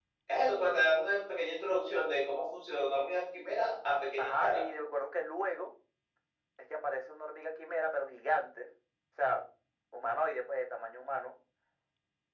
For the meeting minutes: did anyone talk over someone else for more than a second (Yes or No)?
No